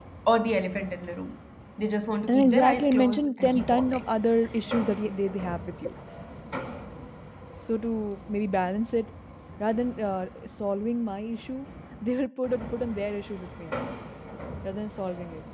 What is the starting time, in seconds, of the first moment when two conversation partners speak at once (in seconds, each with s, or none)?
2.3 s